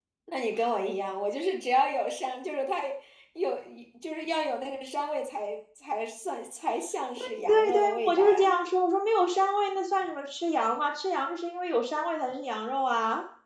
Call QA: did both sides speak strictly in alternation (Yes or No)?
No